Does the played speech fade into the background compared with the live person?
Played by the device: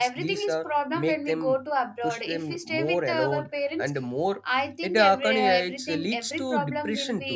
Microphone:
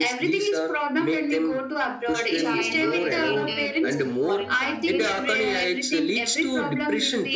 No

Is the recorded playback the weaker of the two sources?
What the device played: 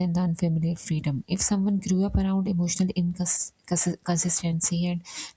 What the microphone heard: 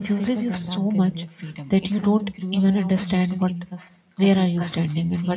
Yes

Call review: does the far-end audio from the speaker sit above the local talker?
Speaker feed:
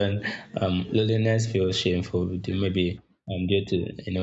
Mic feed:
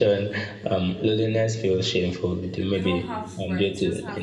Yes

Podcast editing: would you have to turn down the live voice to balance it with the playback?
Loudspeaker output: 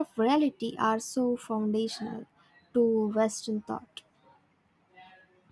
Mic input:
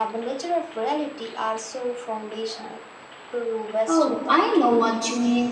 Yes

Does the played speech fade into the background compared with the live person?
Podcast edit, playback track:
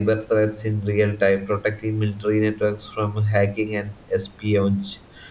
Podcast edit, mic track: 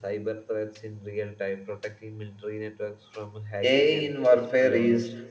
Yes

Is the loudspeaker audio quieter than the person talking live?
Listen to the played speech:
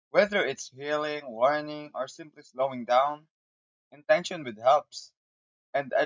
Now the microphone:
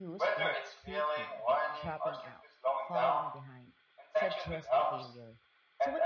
No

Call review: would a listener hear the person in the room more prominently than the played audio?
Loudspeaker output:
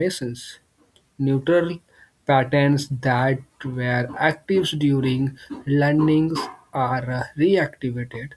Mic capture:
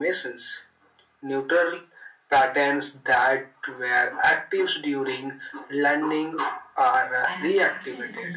No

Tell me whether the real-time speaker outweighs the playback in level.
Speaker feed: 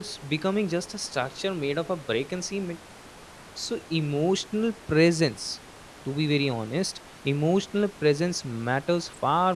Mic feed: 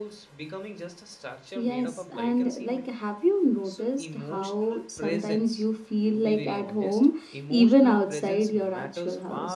Yes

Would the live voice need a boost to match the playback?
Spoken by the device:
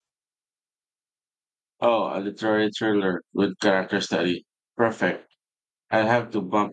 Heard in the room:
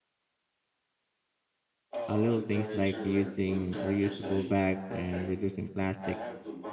No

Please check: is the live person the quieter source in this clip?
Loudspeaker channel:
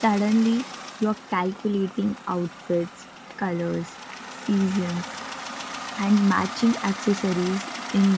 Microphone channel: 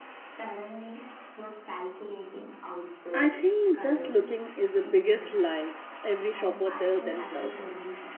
No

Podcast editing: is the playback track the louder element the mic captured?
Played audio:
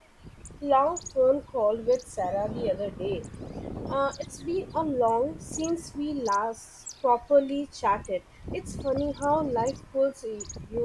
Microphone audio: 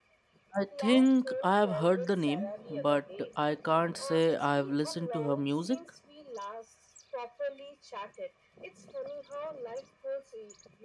No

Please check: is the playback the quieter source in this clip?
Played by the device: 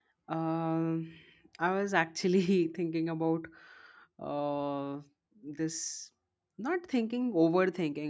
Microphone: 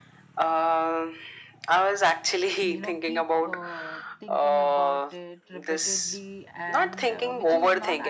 No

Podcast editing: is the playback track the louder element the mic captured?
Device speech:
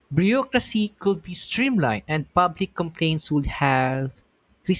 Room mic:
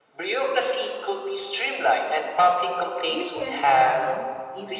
Yes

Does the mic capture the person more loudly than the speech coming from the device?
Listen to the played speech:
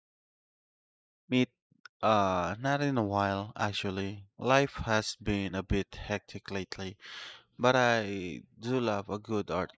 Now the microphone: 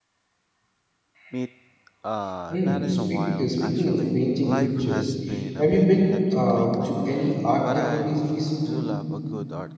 Yes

